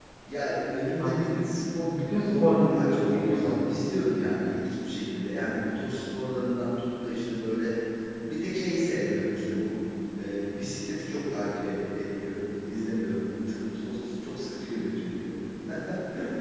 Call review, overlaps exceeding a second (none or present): present